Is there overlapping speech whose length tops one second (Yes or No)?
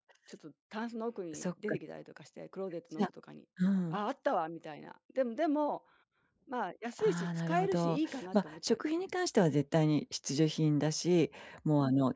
Yes